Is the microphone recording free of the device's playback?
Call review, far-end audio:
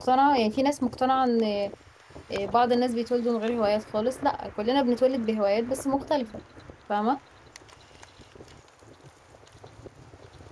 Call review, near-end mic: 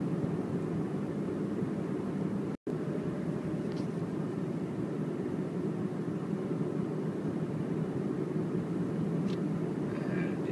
Yes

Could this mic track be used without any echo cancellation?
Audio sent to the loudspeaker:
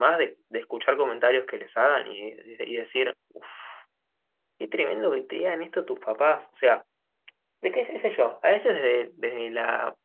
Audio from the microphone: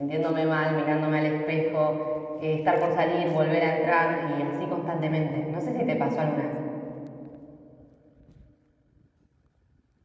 Yes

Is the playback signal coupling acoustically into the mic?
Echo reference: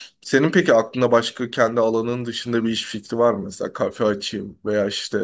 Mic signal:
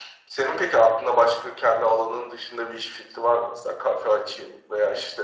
Yes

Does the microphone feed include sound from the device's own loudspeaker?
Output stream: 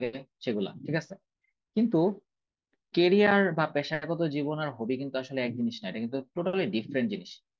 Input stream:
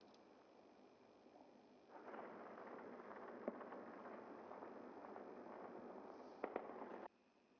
No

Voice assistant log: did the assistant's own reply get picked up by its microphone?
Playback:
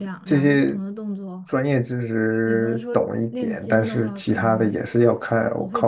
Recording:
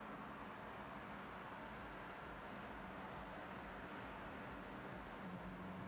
No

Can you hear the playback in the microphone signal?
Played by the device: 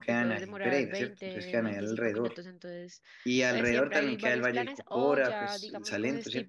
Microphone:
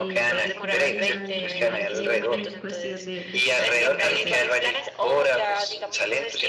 Yes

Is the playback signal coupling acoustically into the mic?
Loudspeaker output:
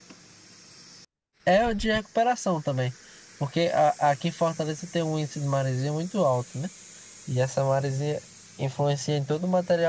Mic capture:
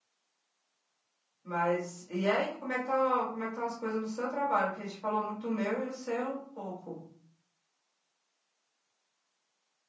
No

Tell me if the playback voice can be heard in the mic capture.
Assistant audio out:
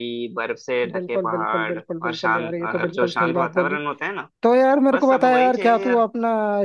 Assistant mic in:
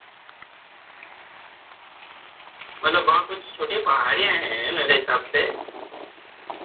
No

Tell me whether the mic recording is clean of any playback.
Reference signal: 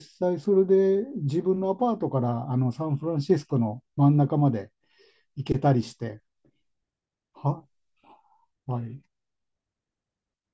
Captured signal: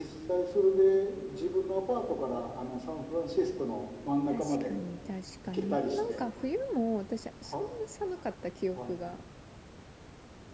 No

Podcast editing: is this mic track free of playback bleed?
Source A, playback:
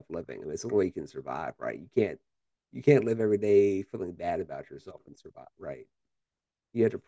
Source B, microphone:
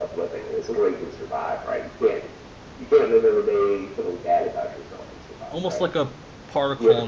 No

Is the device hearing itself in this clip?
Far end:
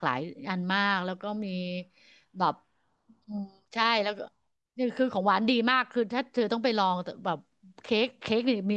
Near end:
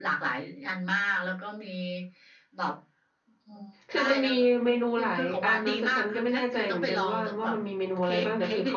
Yes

